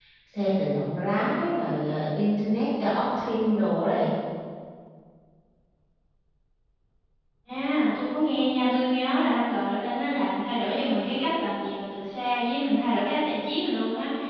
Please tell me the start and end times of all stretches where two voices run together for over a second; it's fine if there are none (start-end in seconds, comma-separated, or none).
none